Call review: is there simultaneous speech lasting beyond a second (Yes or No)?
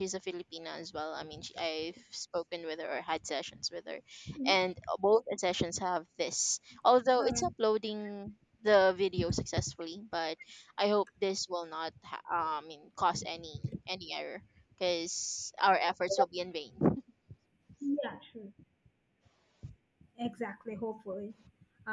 No